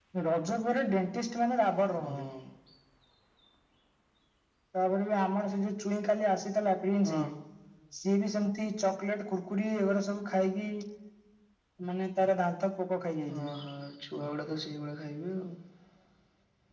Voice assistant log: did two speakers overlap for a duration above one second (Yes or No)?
No